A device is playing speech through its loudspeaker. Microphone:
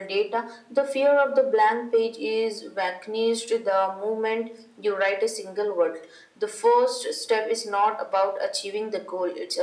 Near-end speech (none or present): none